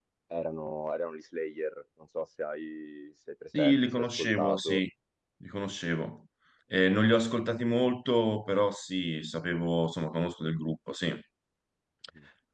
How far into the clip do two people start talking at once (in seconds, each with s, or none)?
3.5 s